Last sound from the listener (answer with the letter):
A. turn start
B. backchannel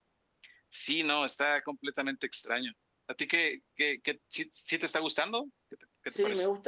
A